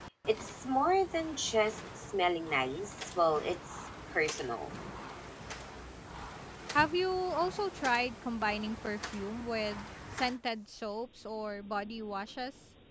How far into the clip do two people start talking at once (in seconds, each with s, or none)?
none